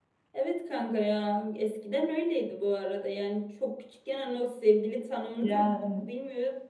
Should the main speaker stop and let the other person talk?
No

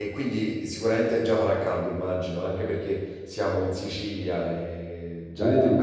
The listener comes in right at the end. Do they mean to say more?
Yes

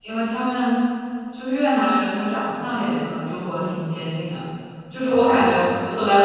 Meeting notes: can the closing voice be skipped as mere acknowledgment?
Yes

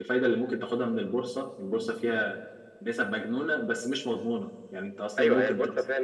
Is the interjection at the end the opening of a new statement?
Yes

